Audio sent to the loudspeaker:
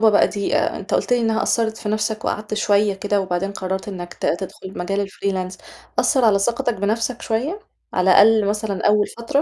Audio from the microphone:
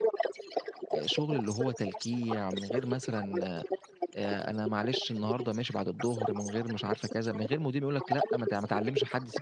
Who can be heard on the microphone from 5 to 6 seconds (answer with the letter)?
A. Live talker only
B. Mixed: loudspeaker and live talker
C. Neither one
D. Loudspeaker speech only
B